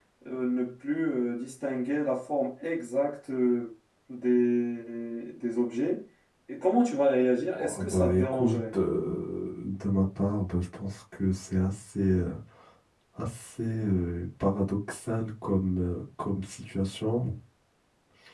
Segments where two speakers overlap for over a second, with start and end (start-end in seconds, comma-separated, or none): 7.5-8.8